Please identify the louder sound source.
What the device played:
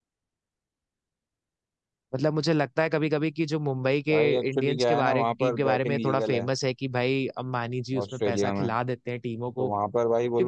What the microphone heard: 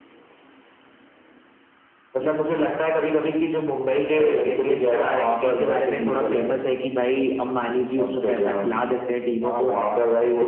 echo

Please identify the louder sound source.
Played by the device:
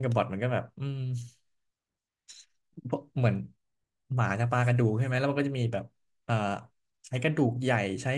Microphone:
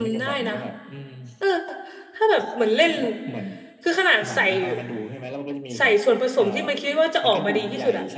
user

